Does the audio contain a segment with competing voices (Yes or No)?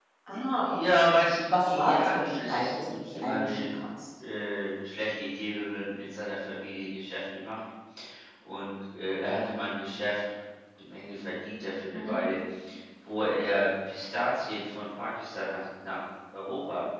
Yes